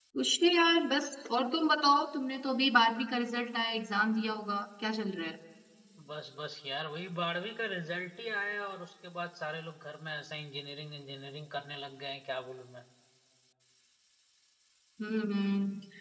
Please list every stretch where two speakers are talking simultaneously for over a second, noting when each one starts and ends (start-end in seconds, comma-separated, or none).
none